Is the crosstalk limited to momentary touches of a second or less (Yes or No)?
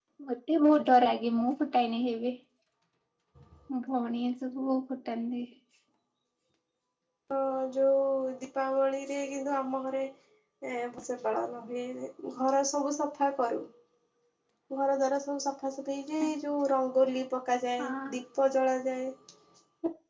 Yes